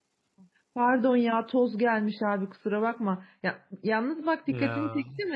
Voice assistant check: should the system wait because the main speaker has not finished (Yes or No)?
Yes